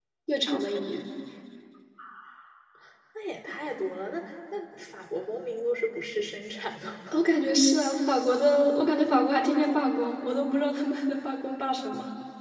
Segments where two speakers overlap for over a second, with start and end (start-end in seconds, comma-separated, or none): none